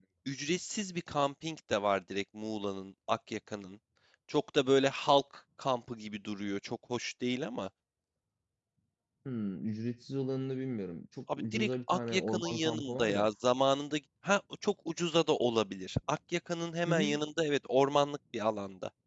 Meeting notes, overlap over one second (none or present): present